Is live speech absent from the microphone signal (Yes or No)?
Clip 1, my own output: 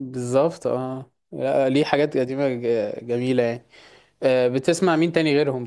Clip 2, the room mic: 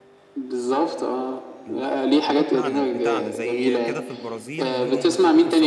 No